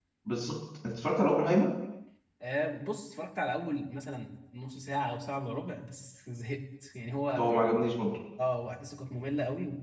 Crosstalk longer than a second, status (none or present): none